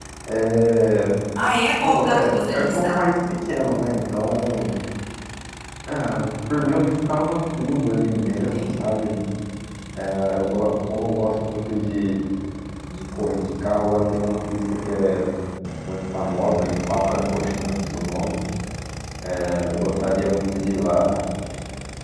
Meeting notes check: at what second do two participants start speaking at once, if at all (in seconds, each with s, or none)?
1.8 s